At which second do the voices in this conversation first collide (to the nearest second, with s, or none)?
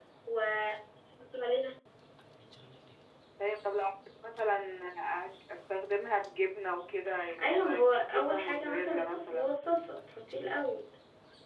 7 s